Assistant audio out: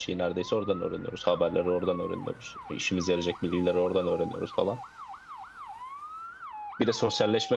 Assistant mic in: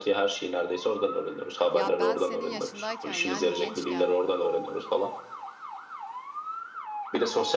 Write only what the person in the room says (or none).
Ya ben senin yaşındayken yani gençken